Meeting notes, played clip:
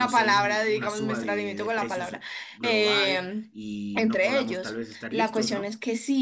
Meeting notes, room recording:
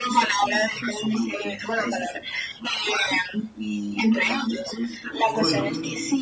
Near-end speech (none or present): present